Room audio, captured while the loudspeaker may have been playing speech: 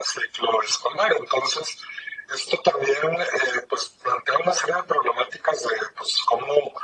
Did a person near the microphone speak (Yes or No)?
No